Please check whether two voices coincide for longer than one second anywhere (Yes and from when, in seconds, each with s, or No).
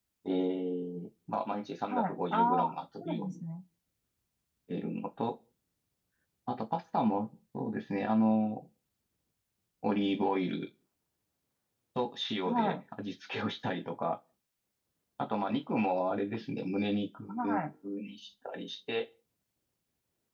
Yes, from 1.9 s